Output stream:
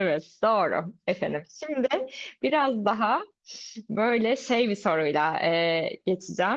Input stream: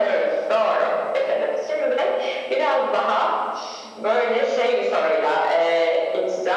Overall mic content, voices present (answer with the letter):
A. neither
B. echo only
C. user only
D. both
B